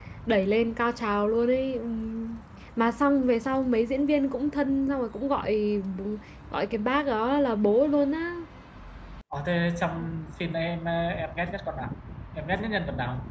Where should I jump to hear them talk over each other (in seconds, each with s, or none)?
none